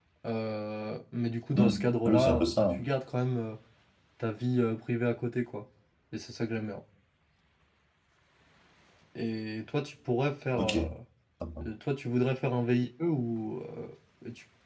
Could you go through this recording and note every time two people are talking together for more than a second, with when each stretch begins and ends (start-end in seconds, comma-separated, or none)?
1.6-2.8